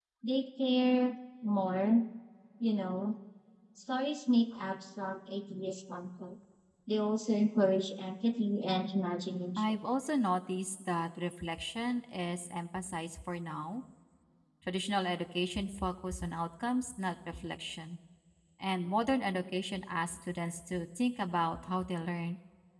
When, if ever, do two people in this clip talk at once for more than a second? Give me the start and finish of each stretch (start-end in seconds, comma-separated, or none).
none